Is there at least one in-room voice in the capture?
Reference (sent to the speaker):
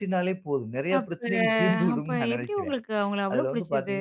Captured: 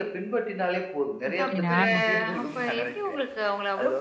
Yes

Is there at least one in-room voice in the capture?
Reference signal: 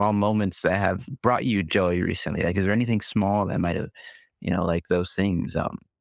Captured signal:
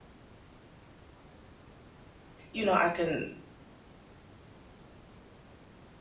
Yes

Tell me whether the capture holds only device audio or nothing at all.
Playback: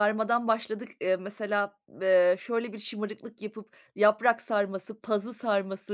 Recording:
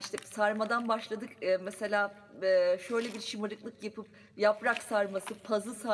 Yes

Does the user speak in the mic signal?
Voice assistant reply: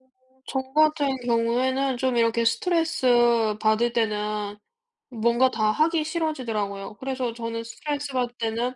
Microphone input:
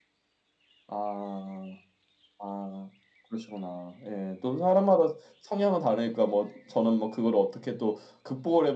Yes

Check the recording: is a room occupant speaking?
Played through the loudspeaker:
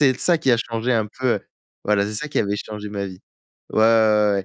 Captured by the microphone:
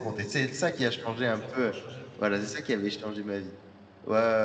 Yes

